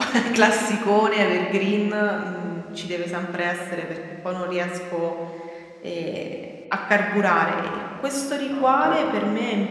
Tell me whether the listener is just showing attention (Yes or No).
Yes